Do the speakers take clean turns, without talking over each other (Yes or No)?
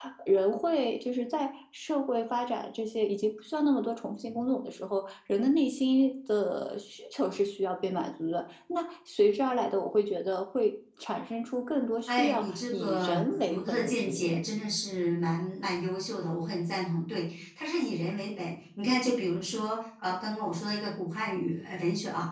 No